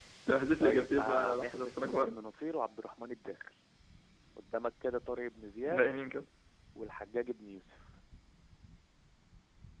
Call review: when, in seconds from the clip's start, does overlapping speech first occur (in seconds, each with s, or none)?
0.6 s